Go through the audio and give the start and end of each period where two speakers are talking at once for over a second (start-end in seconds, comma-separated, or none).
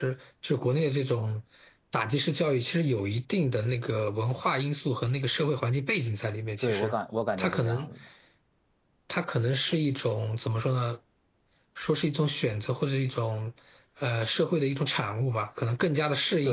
none